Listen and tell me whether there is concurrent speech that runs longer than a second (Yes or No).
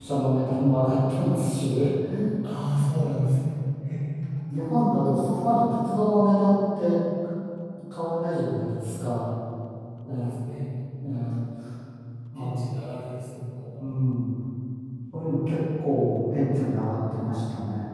No